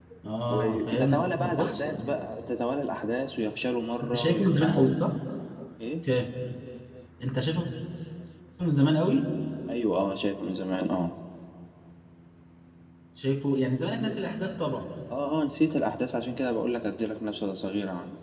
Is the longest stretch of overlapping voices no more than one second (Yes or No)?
No